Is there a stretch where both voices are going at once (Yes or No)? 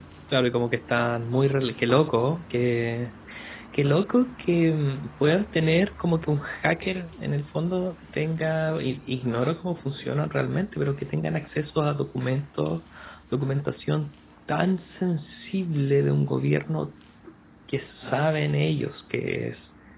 No